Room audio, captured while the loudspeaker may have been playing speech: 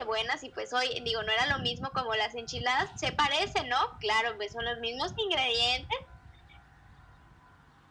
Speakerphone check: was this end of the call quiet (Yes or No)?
Yes